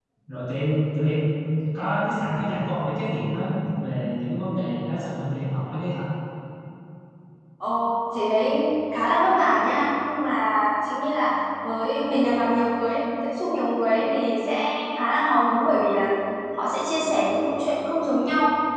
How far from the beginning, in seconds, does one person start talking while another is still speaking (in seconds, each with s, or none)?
none